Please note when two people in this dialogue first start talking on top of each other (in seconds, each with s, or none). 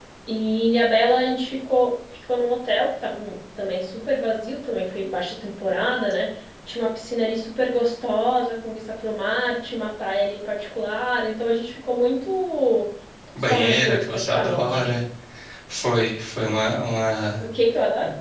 13.4 s